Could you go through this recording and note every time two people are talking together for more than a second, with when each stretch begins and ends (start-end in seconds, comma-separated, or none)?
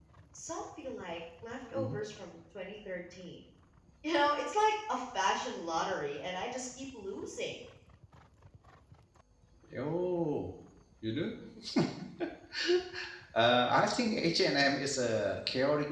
none